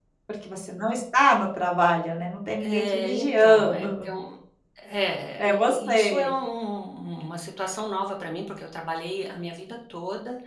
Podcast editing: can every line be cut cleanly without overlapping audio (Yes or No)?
No